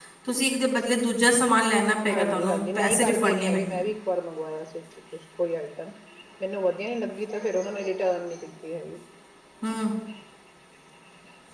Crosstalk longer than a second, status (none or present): present